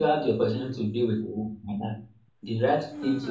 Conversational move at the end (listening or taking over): listening